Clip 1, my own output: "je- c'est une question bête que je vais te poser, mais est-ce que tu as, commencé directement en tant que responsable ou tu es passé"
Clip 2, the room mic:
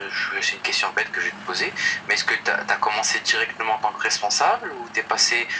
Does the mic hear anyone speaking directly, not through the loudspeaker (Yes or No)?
No